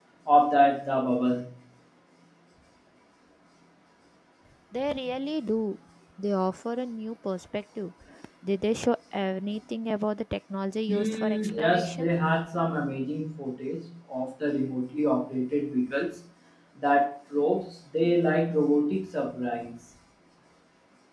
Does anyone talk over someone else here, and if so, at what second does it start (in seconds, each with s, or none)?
10.9 s